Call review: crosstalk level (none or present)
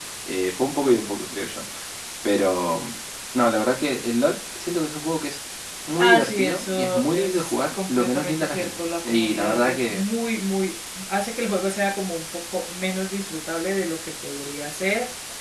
present